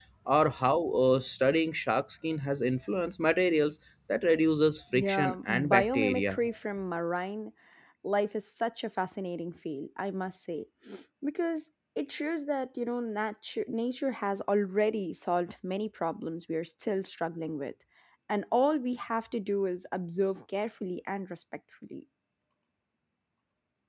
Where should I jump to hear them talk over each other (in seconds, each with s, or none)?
4.9 s